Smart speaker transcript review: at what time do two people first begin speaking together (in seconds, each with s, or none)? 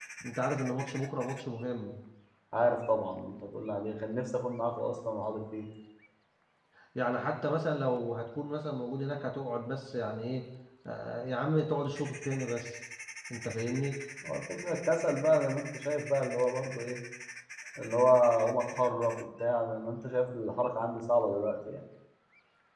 none